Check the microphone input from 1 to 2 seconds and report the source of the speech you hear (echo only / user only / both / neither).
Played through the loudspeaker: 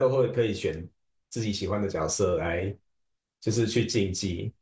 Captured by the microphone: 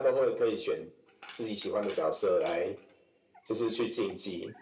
echo only